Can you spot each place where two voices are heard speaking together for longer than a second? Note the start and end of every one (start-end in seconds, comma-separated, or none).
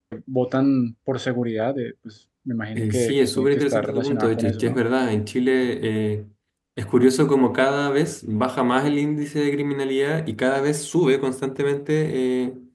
2.8-4.8